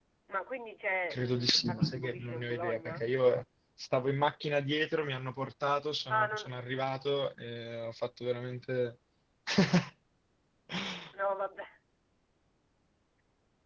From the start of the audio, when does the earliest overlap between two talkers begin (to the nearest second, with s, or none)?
1 s